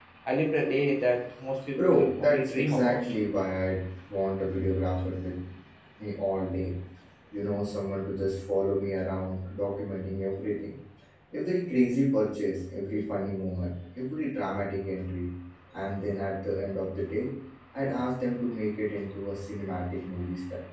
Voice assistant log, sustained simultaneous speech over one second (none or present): present